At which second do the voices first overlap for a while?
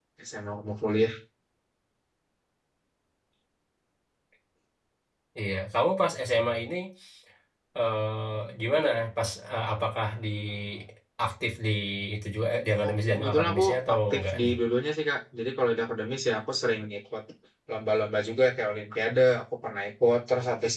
12.9 s

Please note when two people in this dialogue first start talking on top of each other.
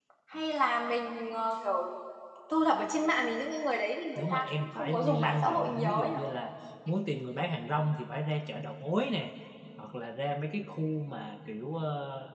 4.2 s

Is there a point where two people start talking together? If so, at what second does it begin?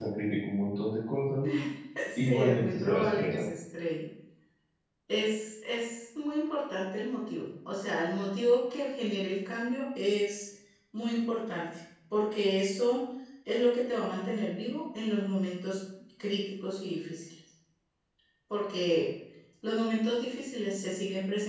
2.2 s

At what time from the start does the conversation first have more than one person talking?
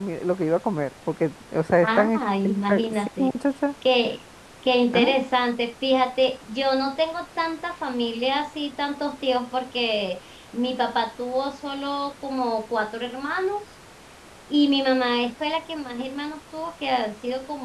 1.8 s

